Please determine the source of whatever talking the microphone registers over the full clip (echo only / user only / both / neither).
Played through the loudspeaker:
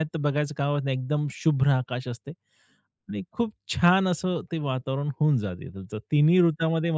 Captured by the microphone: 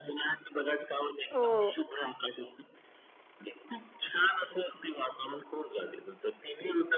both